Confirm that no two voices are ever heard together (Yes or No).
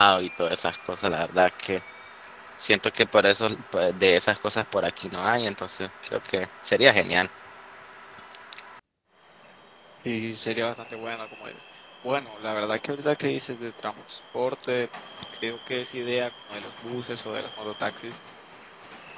Yes